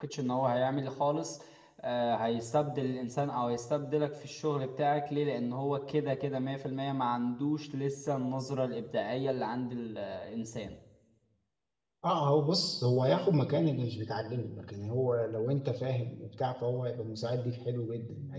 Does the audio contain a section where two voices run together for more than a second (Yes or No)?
No